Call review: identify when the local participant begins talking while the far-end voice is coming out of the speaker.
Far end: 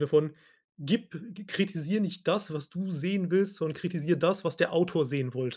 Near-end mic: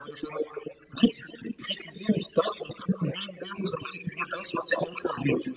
none

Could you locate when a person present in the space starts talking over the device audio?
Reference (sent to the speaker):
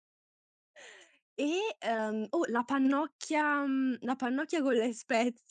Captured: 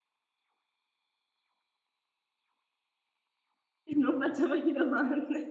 4 s

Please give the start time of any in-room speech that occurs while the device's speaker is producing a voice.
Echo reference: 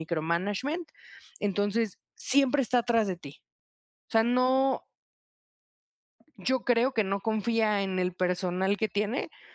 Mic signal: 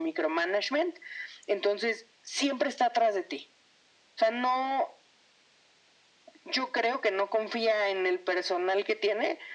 none

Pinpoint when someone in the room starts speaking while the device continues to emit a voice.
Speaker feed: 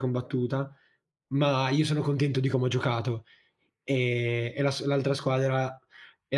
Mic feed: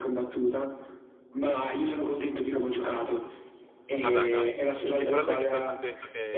4 s

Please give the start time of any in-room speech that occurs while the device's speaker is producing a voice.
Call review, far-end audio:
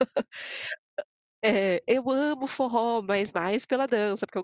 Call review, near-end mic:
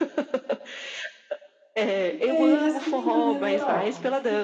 2 s

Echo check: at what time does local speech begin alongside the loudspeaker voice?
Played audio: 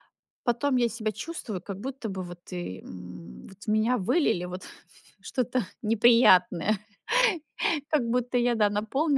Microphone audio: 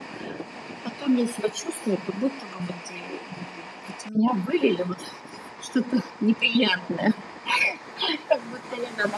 none

